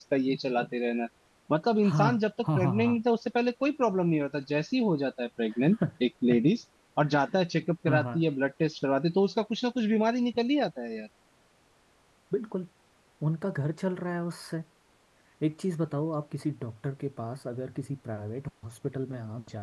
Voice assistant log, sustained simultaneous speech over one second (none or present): none